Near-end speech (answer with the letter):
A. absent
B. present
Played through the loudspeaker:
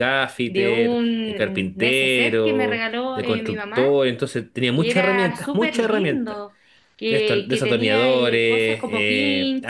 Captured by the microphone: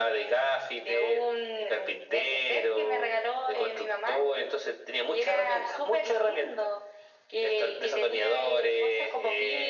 A